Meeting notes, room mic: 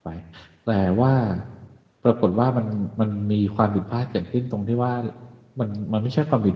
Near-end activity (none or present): present